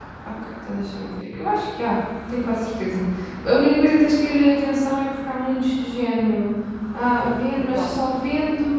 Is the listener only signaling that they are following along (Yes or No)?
Yes